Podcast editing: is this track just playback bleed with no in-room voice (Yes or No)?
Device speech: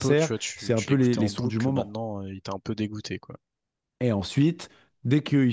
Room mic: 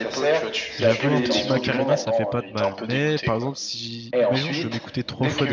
No